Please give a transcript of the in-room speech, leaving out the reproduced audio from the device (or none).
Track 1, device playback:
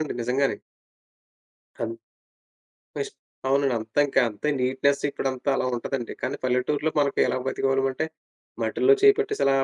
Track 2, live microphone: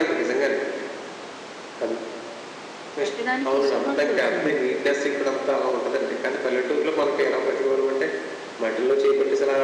పెట్టడానికి ఇష్టపడరు అసలు.